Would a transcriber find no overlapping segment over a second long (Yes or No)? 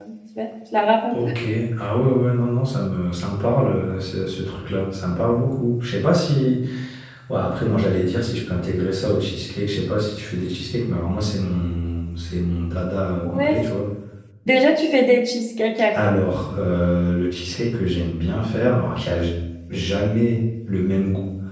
Yes